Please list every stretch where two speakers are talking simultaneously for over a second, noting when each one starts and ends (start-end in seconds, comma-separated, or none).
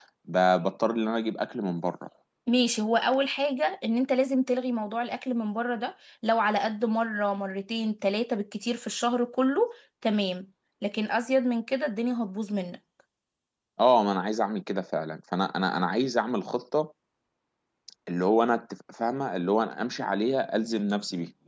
none